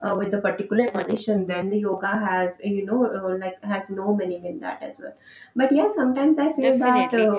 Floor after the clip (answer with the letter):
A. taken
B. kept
A